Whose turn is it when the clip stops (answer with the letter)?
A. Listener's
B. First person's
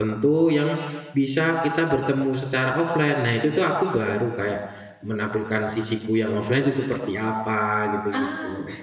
A